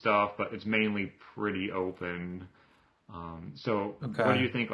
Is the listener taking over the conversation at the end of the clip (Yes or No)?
No